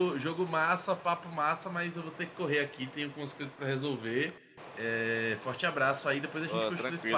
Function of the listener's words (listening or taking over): taking over